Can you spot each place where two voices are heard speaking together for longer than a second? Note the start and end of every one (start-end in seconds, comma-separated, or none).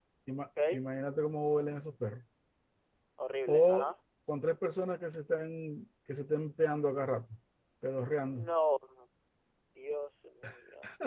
none